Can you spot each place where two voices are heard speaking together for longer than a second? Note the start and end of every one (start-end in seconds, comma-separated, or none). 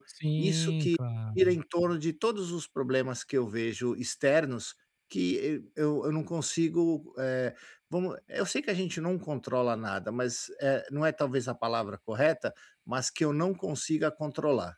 none